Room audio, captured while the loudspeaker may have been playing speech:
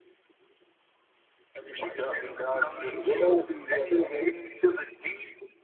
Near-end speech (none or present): present